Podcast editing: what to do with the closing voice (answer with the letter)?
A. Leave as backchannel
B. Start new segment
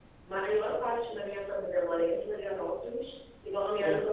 A